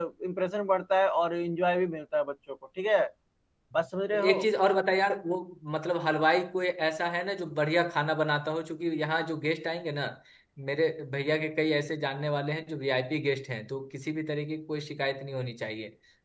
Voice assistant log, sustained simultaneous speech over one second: none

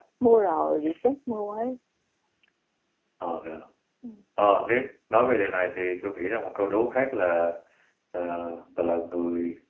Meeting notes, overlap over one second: none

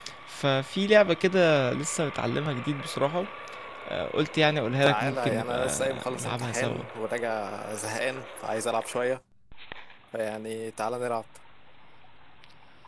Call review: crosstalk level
present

